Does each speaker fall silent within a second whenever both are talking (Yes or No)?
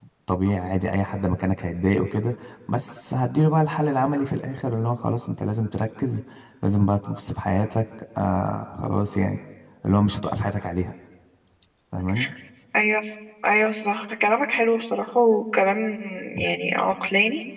Yes